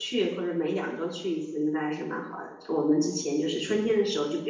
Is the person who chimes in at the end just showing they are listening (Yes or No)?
Yes